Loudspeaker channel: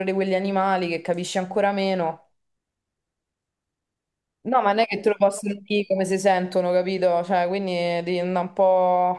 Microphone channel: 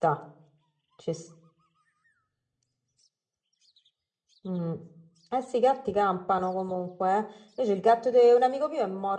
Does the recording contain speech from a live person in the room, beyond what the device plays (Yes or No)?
Yes